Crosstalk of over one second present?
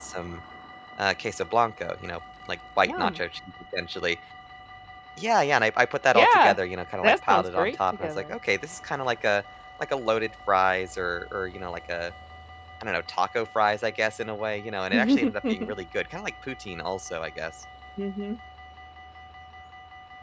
Yes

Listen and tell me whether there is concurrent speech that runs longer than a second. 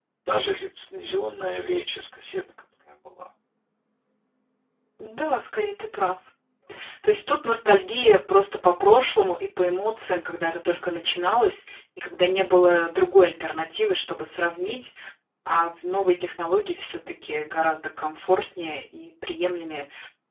No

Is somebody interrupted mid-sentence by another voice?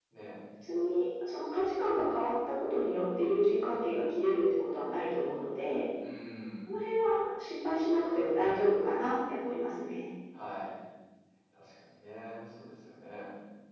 No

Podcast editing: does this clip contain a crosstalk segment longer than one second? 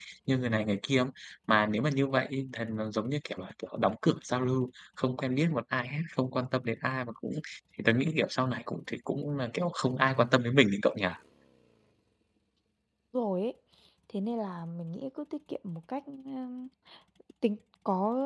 No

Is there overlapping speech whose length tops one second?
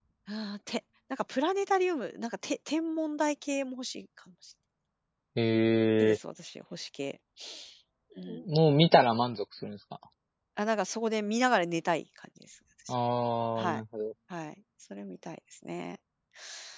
No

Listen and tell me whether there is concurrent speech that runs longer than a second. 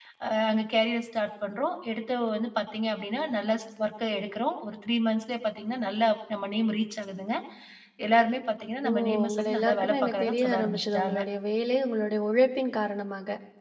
Yes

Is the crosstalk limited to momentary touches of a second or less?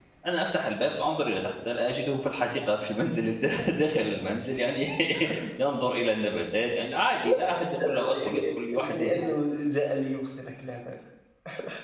No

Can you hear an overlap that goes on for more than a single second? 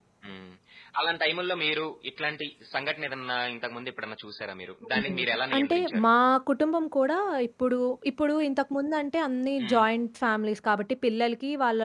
Yes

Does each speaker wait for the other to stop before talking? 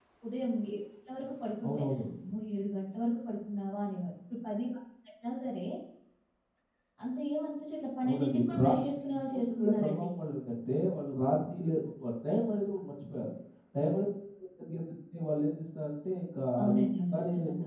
No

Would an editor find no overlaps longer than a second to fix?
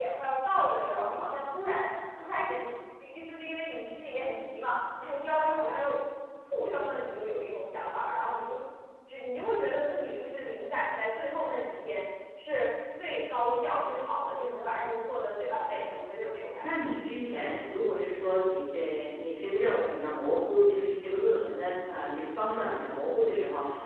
Yes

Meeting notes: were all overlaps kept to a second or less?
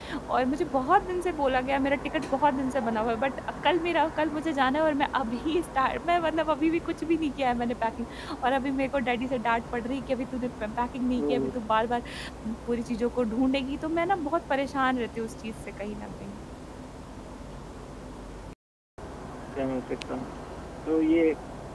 Yes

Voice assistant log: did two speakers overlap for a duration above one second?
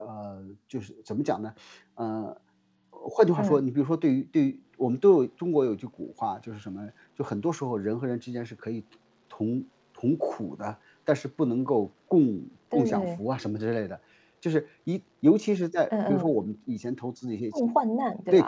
No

